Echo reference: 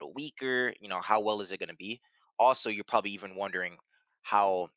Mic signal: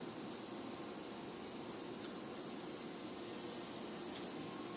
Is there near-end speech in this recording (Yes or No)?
No